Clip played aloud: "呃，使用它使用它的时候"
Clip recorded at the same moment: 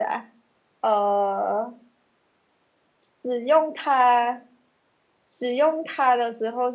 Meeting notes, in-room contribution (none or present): none